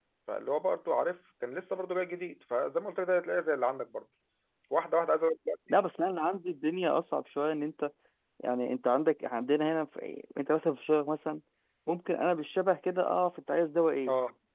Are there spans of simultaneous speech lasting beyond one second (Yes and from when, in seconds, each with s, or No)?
No